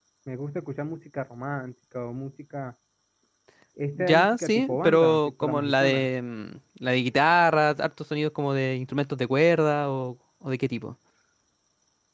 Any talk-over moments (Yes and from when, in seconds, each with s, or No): Yes, from 4.0 s